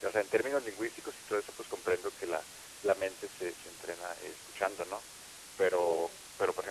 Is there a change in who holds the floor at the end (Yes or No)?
No